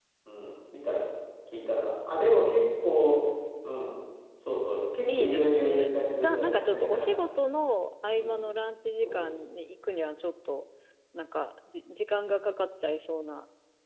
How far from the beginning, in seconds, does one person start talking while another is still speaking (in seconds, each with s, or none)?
5.1 s